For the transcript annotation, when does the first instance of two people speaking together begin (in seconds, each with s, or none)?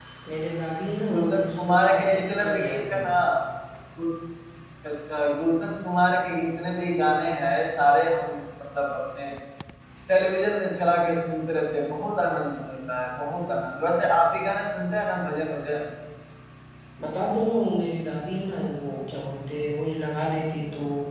1.1 s